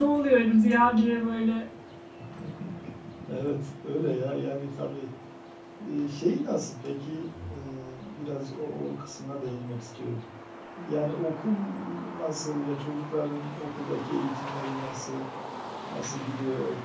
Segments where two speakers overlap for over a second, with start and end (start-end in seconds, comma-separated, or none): none